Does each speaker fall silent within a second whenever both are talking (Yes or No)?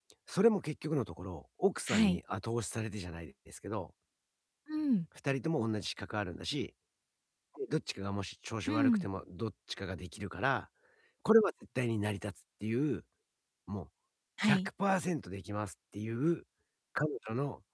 Yes